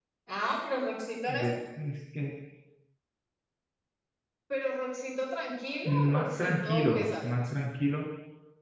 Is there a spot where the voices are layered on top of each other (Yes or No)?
Yes